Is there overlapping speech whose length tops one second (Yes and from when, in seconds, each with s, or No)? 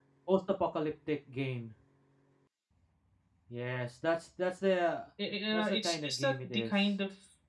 Yes, from 5.5 s